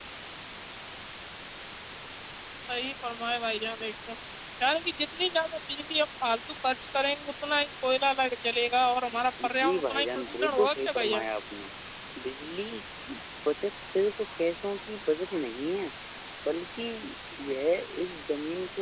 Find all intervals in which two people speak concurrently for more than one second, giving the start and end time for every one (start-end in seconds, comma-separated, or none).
9.6-11.2